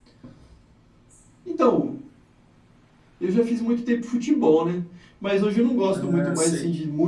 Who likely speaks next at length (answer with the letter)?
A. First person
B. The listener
A